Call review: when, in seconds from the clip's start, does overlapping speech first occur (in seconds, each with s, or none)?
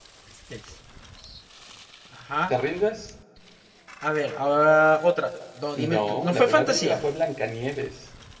5.8 s